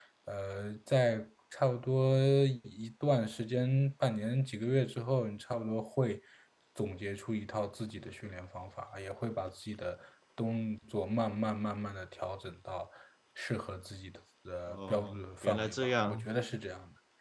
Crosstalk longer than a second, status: present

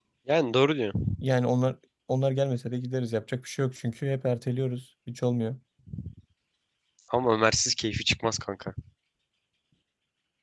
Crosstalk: none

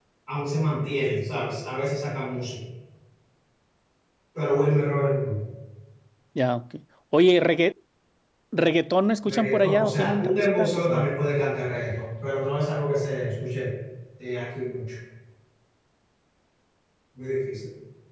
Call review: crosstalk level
present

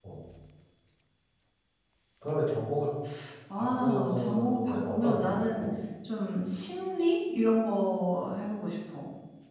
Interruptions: present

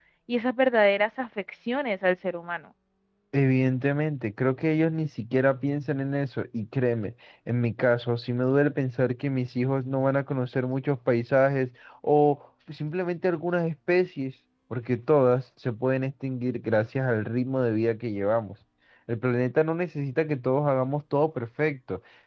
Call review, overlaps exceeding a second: none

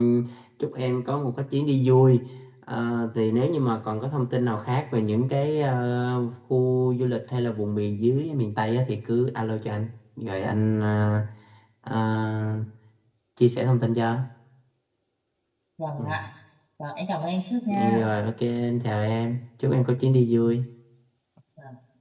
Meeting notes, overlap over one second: none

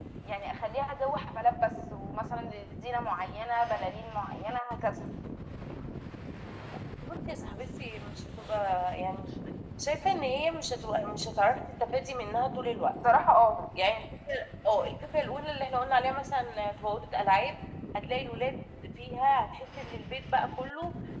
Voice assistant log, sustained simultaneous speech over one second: none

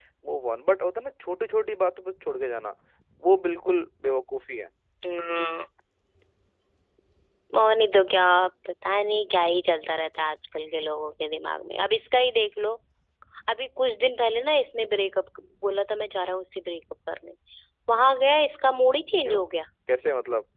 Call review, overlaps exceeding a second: none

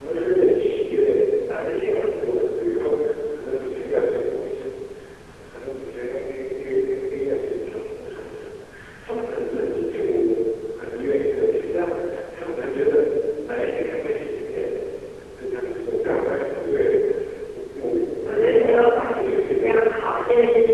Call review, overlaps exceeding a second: present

